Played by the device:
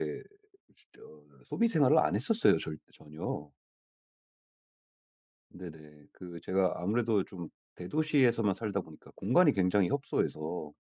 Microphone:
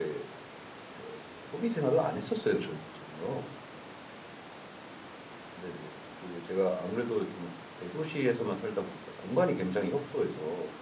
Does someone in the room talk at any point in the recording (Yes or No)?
No